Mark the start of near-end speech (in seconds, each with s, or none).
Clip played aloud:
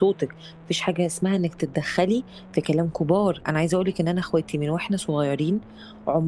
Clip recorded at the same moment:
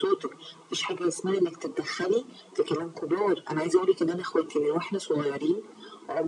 none